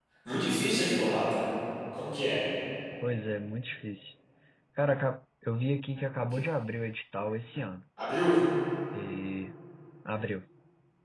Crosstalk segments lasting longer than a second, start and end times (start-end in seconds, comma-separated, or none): none